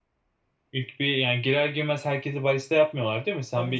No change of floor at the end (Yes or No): No